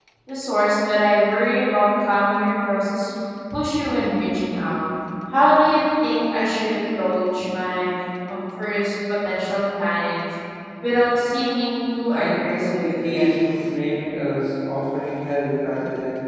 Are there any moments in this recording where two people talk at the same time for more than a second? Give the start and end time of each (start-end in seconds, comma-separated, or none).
12.1-13.5